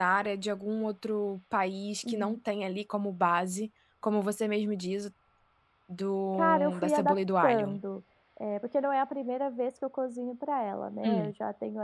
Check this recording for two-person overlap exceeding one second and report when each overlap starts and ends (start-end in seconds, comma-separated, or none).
6.3-7.8